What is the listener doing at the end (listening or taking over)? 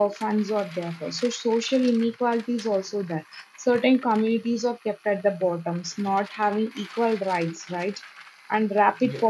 listening